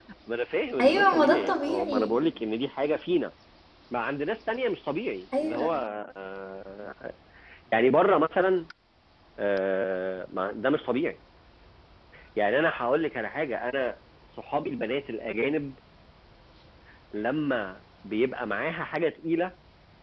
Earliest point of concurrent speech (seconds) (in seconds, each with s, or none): 0.8 s